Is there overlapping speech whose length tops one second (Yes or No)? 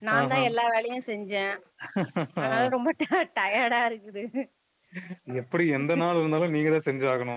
No